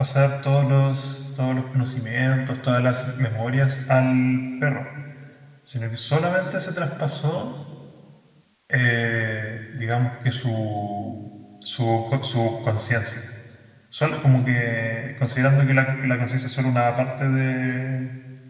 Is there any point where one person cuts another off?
No

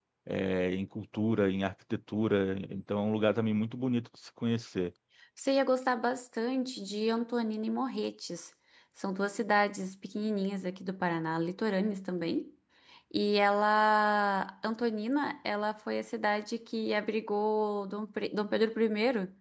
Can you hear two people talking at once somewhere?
No

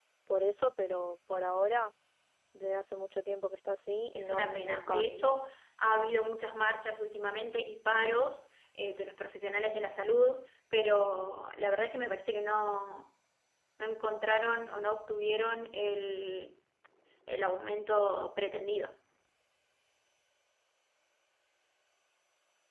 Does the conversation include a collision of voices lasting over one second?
Yes, from 4.1 s

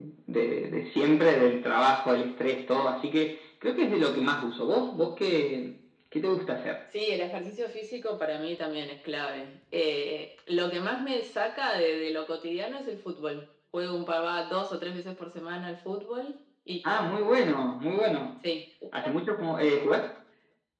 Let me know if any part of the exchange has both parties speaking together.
No

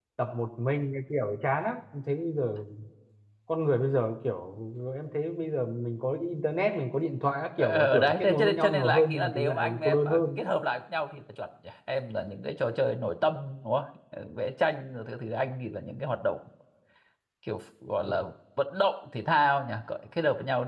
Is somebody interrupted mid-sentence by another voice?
Yes, from 7.6 s

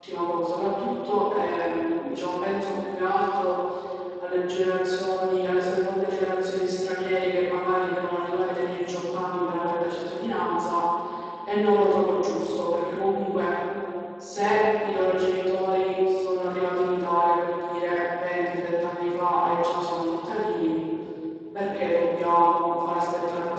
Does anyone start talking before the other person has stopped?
No

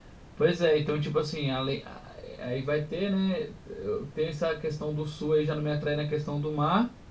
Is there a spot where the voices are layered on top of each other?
No

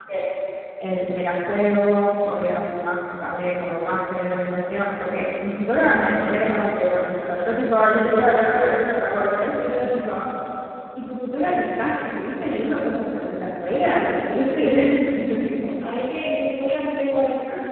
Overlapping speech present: No

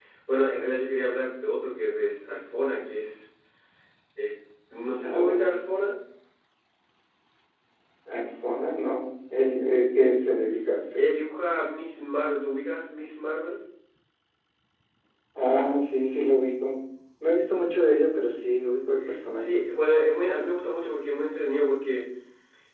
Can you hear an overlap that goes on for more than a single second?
No

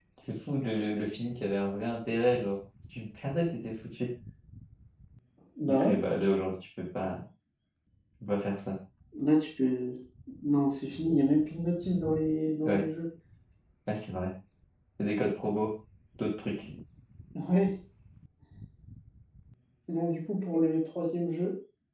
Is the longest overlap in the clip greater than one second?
No

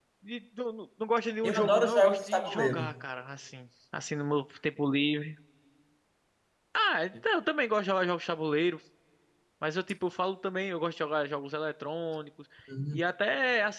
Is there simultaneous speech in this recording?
Yes, from 1.4 s

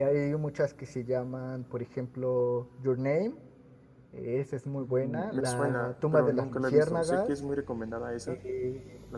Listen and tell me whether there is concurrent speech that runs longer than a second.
Yes, from 4.8 s

